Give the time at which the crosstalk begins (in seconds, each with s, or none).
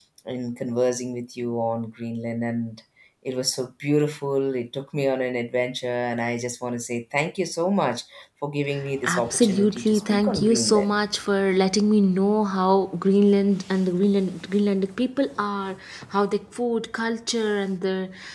9.0 s